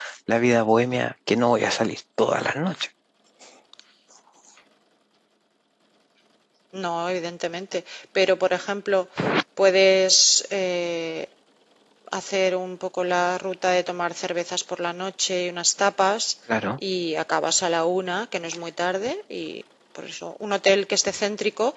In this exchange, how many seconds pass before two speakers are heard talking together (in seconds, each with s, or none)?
none